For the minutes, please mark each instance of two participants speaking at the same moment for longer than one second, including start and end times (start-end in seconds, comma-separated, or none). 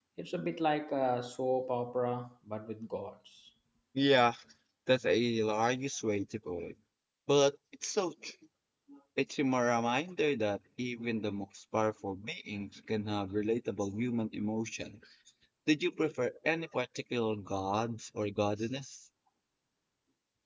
none